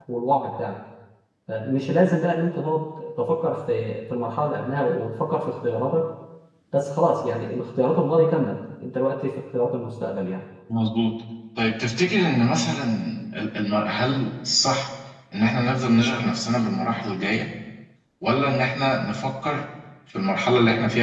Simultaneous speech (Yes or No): No